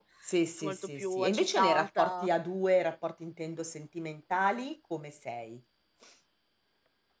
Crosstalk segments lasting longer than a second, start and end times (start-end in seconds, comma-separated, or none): 0.6-2.3